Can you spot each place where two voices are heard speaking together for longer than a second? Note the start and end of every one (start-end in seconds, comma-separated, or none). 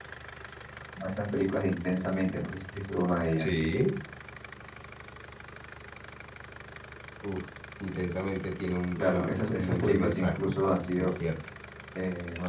9.0-10.6